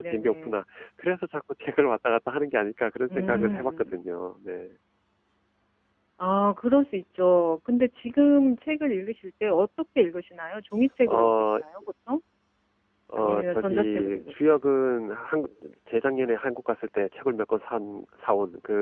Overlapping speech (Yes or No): Yes